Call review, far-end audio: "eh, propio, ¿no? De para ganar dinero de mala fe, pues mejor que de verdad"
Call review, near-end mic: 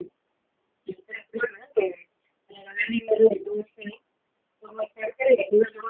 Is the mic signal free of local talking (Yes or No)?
Yes